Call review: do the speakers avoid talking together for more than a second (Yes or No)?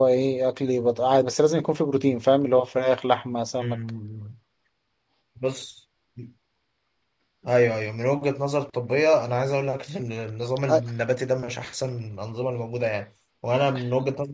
Yes